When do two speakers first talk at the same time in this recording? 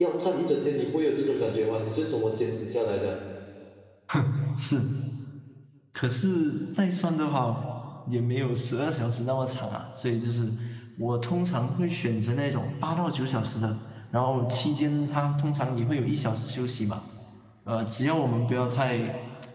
none

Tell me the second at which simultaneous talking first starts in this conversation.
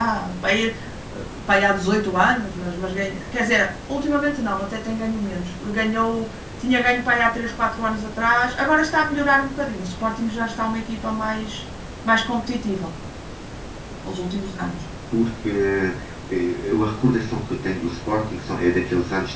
none

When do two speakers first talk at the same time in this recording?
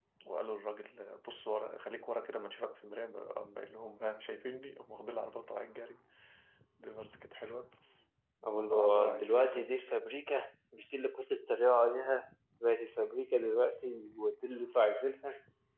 8.5 s

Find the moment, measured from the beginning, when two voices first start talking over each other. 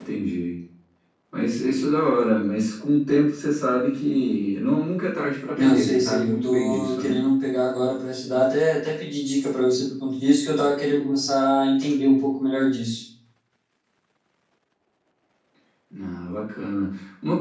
5.6 s

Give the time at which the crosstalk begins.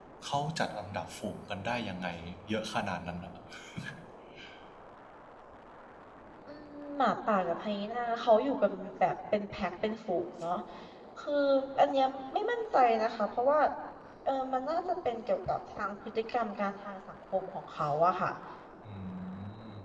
none

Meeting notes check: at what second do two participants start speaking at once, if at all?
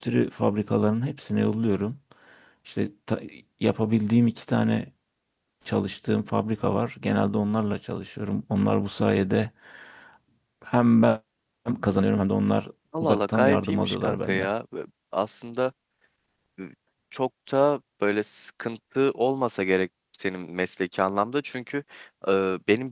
12.9 s

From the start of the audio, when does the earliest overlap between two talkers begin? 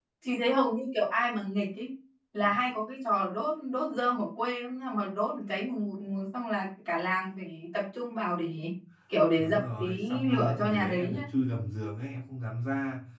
9.4 s

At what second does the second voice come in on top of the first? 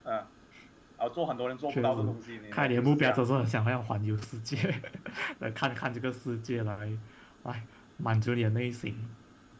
1.7 s

